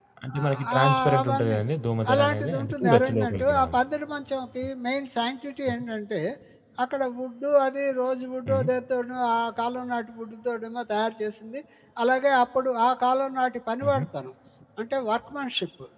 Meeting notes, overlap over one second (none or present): present